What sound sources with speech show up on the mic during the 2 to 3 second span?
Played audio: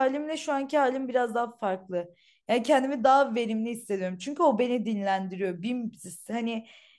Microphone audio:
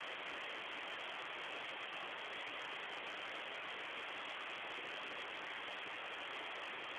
neither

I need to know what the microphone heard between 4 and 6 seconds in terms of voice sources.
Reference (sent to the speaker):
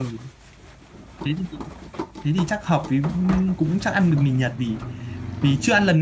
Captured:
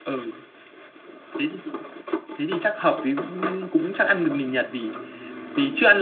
echo only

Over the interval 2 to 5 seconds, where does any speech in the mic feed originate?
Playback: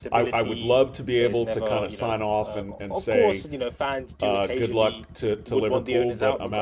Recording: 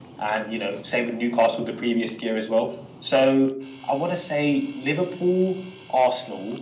user only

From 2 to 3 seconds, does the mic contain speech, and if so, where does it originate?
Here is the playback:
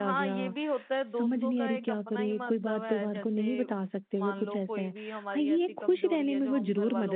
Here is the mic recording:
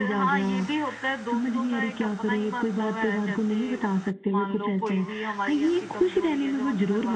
echo only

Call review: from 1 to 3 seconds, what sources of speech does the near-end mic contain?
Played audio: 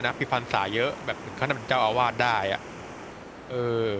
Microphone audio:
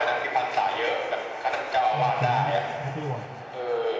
both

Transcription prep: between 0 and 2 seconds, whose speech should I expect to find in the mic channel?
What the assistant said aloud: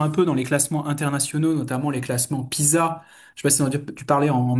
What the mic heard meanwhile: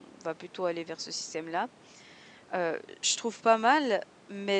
user only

